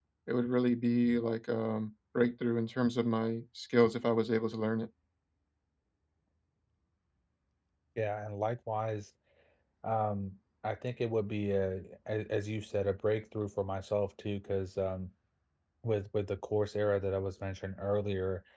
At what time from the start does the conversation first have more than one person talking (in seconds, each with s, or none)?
none